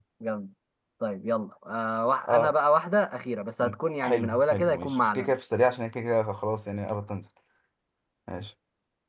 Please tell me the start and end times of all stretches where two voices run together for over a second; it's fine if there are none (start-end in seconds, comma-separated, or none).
3.6-5.3